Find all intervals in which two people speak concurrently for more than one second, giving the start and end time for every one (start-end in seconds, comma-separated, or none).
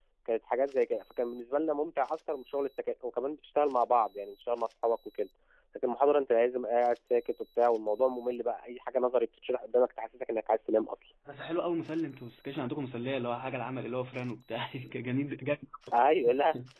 none